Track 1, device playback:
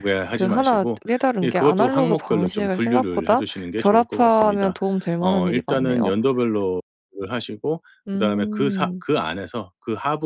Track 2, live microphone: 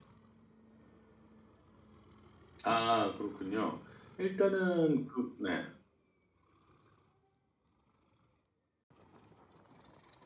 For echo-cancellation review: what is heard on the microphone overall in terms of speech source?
user only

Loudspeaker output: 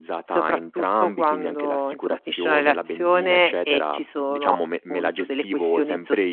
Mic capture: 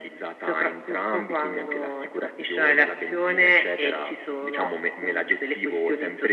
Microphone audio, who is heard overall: echo only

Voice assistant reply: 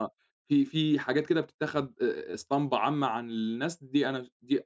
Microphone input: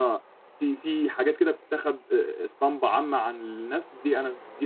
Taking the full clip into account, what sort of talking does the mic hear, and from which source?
echo only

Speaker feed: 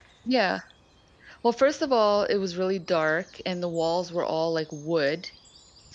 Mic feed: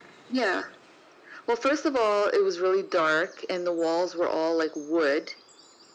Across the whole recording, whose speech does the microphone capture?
echo only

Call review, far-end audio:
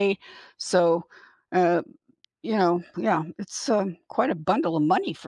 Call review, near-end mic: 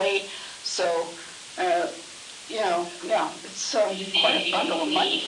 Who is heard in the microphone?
both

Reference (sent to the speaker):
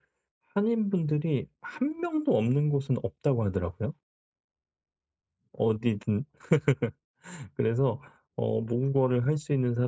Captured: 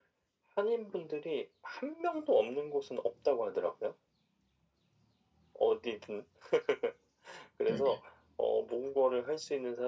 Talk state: both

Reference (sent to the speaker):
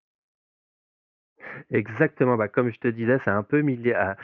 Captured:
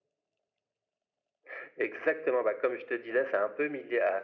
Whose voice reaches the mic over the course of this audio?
echo only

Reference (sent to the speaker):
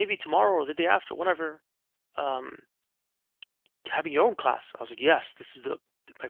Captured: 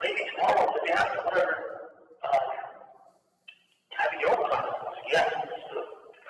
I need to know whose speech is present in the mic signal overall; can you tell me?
echo only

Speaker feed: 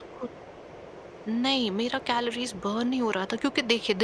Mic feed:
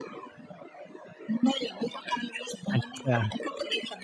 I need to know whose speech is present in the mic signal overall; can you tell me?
both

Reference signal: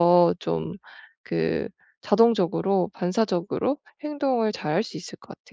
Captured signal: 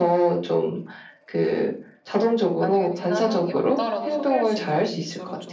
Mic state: both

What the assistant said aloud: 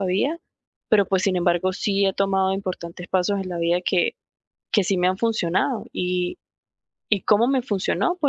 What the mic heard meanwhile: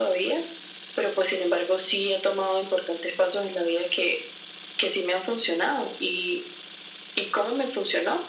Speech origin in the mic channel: echo only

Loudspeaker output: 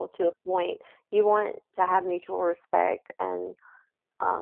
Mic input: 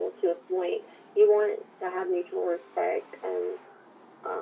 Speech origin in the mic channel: echo only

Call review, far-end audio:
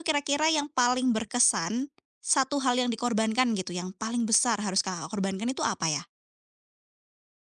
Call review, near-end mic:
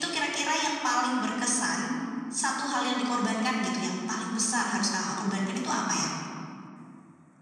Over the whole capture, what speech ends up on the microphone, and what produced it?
echo only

